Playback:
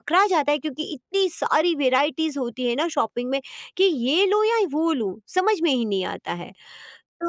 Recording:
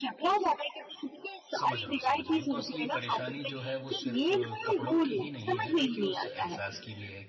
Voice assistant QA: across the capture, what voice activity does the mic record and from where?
both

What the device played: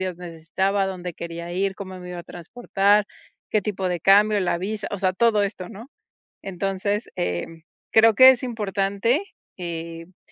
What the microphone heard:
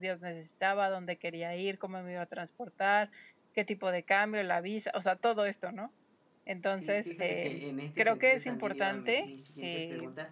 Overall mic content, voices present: both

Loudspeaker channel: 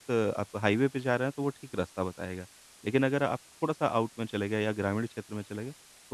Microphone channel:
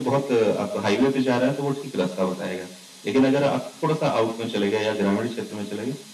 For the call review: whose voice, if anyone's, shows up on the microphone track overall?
echo only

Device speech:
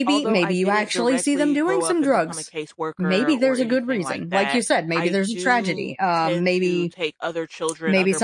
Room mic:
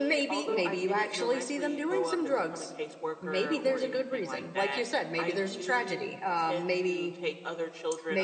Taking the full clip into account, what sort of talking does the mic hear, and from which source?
echo only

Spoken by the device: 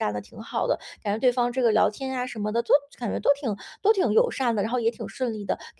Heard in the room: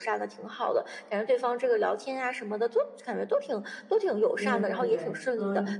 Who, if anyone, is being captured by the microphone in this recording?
both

